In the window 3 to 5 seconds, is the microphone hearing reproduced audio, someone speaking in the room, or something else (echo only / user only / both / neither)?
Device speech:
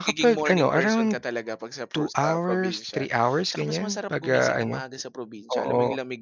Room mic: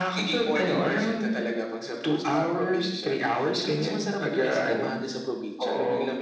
echo only